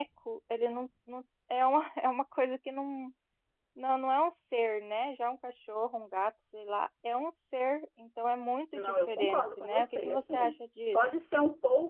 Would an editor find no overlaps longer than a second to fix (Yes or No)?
No